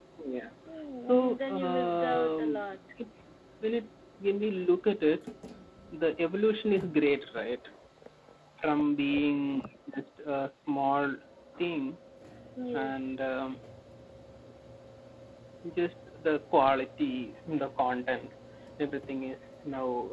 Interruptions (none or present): present